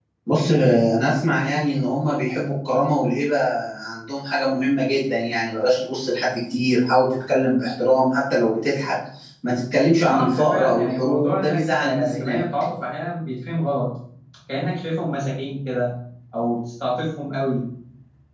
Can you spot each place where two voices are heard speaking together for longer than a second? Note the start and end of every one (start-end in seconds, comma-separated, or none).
10.0-12.4